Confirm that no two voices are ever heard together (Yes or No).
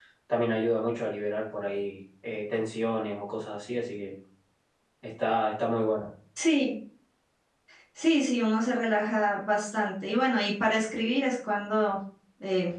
Yes